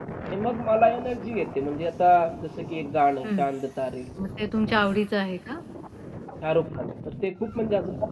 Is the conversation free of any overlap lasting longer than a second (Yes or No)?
Yes